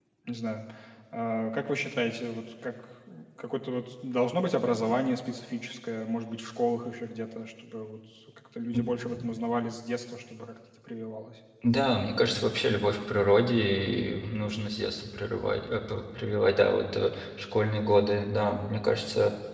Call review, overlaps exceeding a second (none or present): none